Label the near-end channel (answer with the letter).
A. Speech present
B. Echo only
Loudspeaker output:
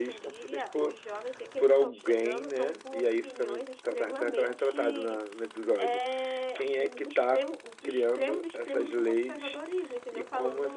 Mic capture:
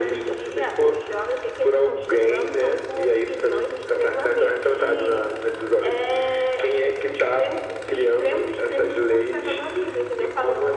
B